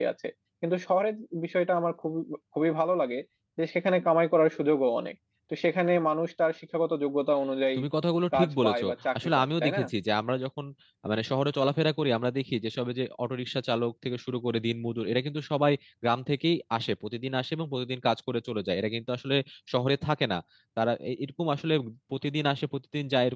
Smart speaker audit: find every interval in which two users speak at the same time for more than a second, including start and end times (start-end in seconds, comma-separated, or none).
8.3-9.8